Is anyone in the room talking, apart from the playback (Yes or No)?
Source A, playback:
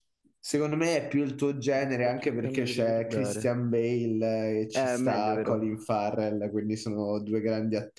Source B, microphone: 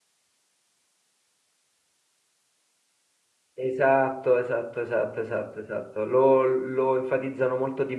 Yes